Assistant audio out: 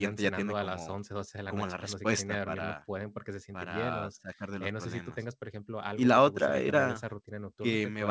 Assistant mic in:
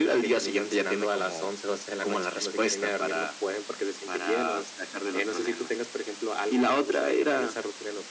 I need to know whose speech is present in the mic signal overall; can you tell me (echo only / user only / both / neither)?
echo only